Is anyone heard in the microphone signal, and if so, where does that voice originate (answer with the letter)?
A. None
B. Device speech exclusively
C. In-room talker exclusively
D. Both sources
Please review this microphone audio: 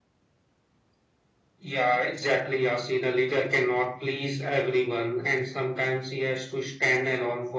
B